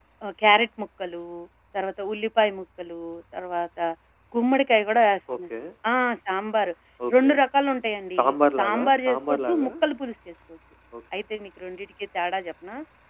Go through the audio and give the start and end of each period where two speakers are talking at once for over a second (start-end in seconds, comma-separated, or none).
8.2-9.7